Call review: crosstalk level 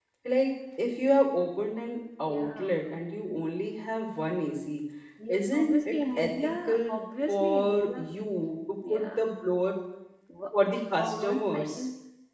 present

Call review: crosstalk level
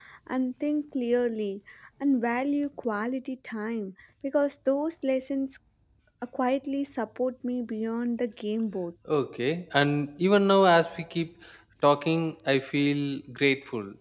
none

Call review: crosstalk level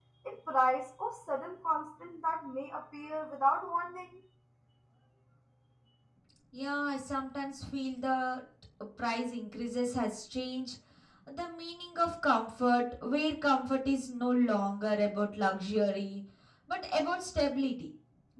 none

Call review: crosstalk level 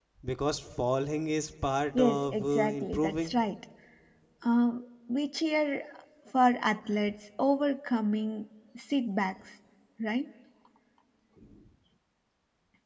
present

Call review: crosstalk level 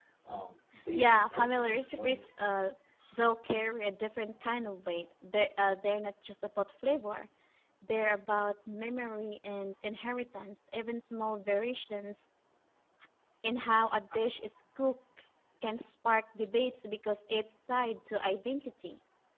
present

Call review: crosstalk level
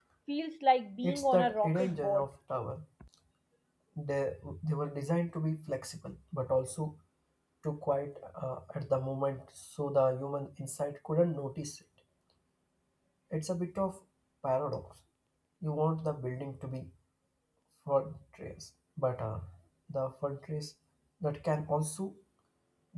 present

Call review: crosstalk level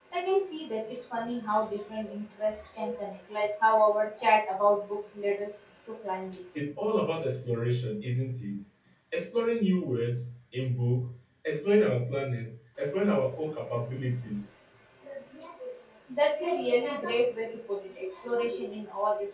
none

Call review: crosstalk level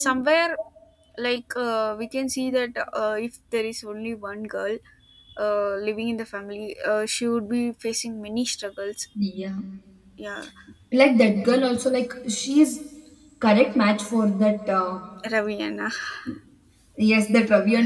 none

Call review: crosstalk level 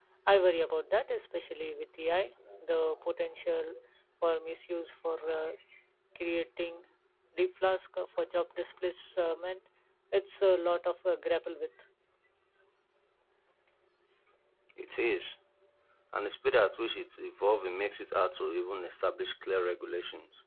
none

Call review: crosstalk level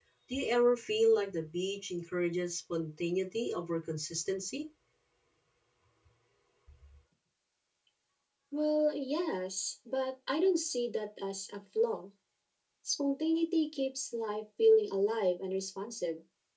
none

